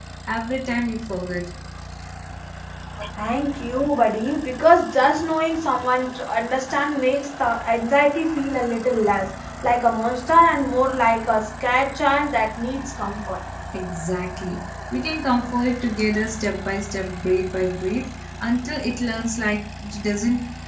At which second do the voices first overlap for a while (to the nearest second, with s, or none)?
none